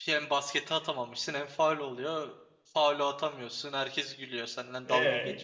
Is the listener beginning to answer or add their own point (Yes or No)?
Yes